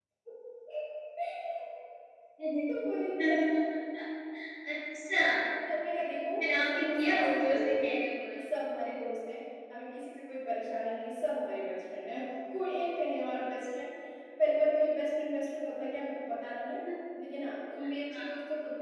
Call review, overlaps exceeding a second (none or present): present